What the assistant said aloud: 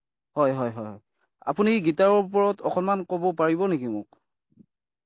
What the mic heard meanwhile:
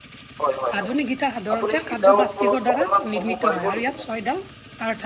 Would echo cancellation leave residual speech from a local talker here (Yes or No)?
Yes